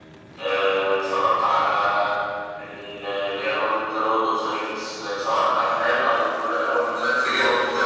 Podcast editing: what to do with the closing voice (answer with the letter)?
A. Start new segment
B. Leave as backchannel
A